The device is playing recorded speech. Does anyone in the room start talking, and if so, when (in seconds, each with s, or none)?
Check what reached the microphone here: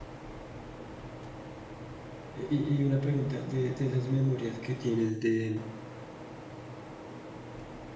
2.3 s